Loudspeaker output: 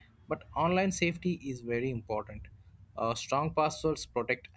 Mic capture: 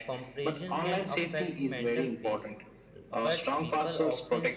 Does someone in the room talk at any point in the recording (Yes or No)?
Yes